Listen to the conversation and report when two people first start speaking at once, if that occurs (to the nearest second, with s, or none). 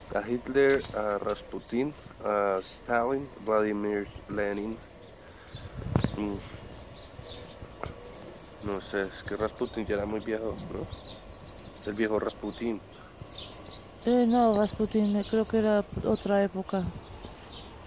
none